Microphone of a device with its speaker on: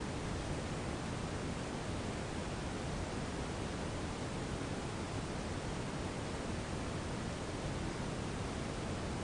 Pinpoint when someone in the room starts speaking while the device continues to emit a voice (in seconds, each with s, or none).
none